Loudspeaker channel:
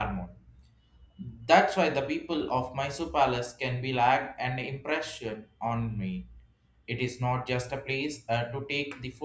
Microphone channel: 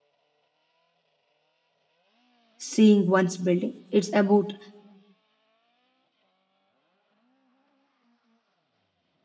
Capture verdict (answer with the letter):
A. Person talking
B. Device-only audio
A